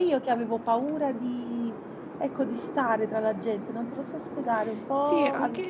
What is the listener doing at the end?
taking over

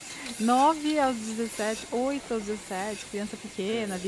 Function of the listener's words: listening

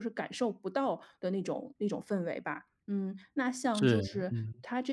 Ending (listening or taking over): listening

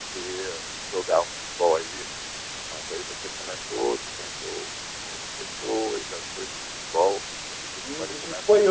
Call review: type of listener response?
taking over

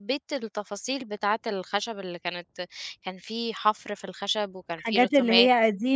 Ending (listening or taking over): taking over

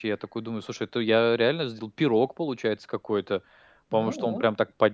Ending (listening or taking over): listening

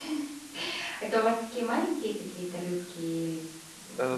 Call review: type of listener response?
taking over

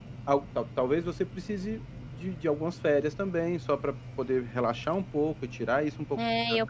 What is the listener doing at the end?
taking over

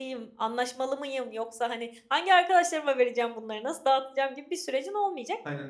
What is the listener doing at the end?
listening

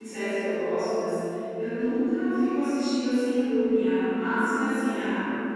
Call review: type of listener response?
listening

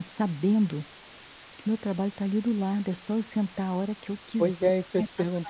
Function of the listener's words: taking over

